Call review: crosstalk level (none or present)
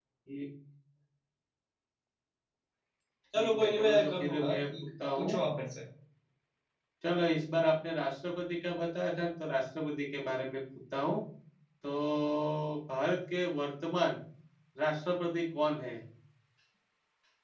present